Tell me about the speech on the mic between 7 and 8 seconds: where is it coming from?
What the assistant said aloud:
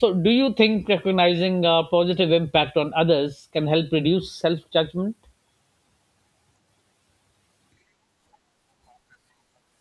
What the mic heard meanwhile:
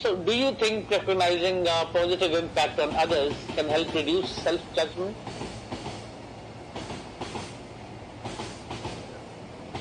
neither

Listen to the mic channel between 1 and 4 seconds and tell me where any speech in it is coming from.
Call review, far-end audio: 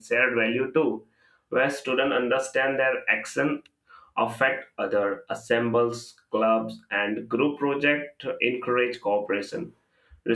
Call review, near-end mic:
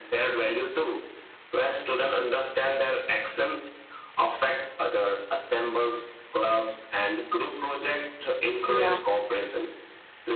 echo only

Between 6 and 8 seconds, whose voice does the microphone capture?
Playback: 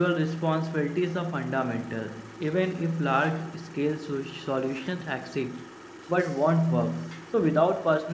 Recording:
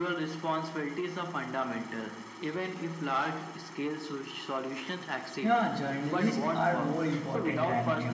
both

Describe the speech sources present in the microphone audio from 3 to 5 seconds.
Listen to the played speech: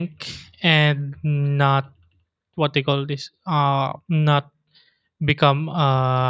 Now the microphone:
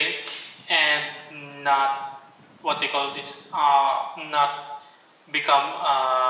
echo only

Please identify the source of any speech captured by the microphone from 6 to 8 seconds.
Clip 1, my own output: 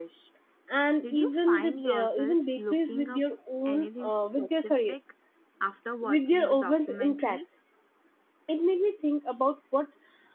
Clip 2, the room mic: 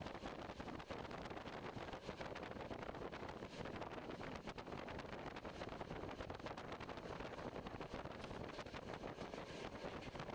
neither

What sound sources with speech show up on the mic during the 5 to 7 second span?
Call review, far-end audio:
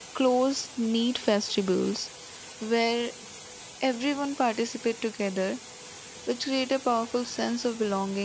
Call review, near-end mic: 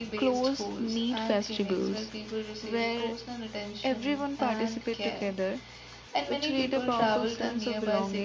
both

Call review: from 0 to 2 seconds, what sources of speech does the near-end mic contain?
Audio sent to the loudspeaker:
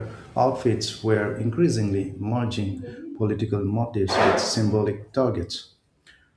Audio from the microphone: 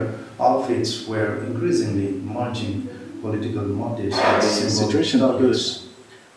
echo only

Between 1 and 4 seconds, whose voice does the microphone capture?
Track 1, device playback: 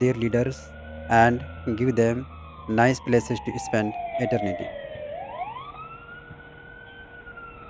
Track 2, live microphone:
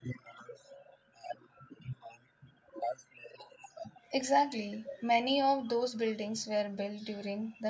echo only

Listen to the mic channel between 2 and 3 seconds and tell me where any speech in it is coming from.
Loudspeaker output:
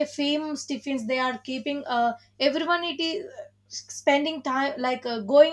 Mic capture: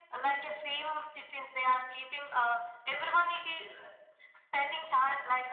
echo only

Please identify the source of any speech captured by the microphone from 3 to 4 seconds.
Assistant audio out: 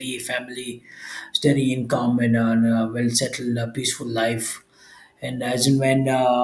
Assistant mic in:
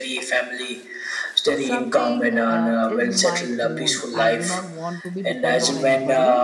both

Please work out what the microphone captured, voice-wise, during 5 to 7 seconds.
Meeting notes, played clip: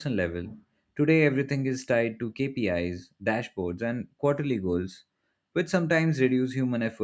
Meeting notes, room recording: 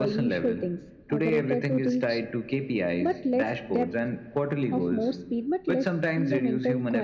both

